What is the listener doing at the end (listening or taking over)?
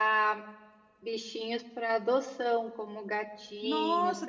taking over